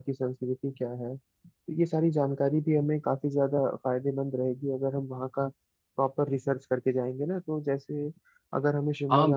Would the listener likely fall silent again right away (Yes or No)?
No